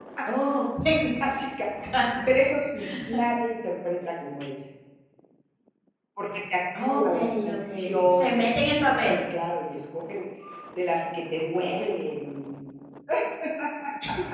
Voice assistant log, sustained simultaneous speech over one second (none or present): present